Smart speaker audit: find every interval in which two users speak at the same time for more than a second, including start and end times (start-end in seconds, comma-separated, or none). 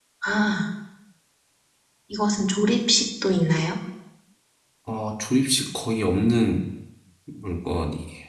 none